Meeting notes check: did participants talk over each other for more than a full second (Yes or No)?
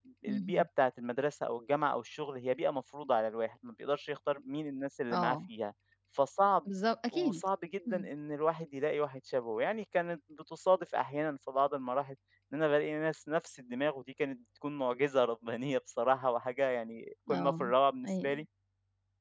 No